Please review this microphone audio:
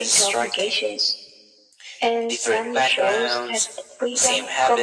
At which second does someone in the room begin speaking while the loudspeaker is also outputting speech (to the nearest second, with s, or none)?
none